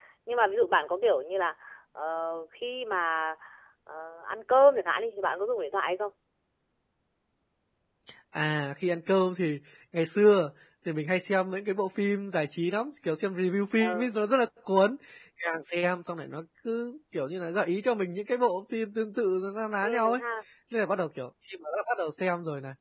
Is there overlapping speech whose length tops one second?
No

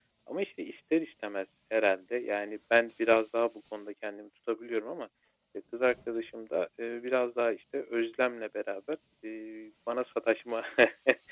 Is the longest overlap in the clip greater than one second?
No

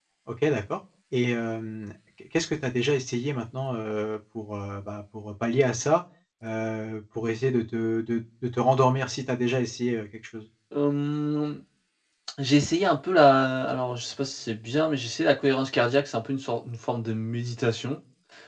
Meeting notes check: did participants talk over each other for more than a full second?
No

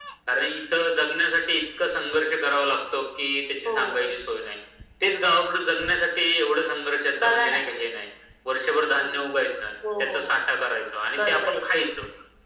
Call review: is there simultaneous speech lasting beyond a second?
No

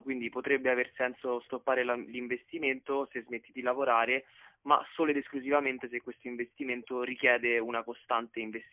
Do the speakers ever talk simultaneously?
No

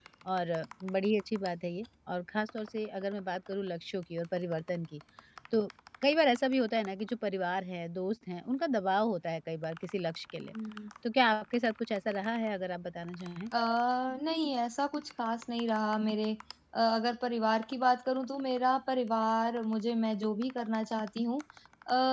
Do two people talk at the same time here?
No

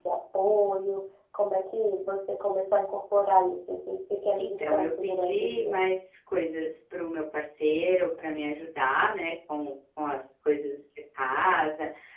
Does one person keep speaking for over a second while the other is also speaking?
Yes, from 4.4 s

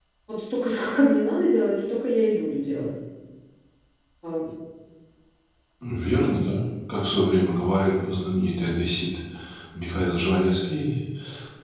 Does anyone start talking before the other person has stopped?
No

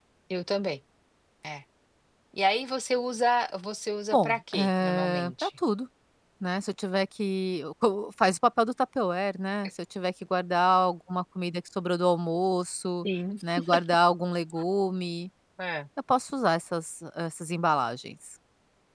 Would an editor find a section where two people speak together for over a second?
Yes, from 4.1 s

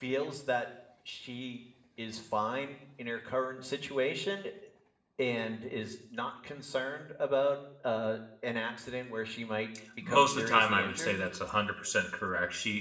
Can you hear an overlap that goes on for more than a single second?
Yes, from 10.0 s

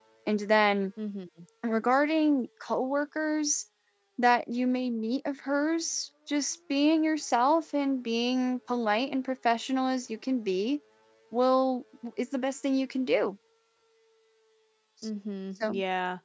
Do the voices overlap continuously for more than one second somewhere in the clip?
No

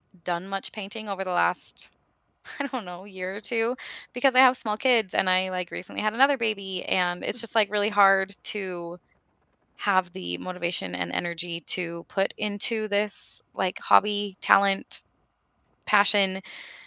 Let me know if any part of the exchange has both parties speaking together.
No

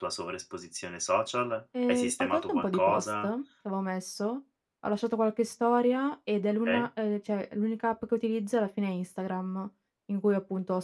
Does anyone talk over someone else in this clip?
Yes, from 1.7 s

